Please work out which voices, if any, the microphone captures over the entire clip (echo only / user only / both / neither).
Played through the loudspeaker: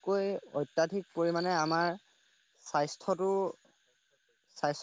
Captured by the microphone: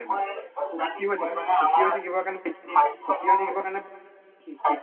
both